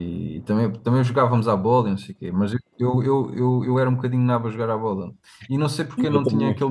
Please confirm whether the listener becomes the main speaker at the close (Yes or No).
No